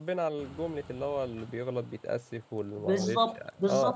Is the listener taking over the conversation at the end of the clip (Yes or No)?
Yes